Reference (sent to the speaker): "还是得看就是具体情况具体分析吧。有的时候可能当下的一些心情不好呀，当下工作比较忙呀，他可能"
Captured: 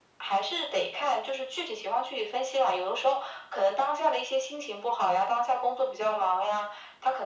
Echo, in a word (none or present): present